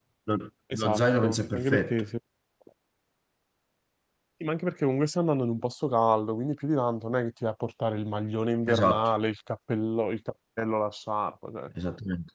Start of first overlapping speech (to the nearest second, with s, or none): 1 s